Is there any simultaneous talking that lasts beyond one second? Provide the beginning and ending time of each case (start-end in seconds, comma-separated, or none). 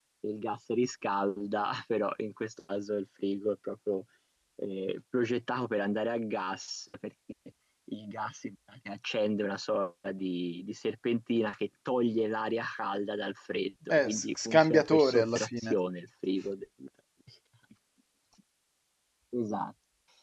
13.9-15.7